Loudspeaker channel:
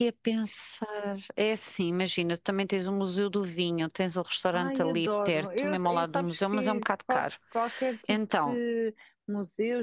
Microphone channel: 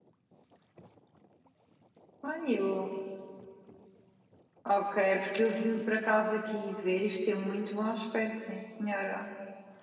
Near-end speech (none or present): present